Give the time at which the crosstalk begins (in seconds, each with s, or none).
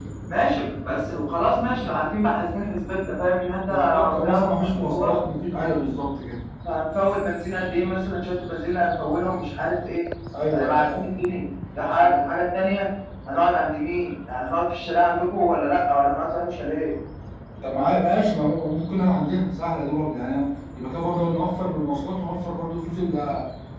3.6 s